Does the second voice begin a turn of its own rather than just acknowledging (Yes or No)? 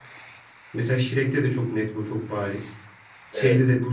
No